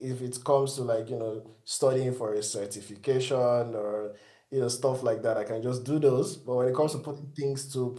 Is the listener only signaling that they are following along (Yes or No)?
Yes